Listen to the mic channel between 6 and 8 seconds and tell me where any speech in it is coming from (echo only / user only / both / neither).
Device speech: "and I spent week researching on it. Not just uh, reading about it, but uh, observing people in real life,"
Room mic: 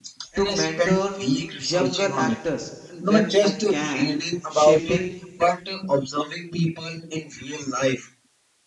echo only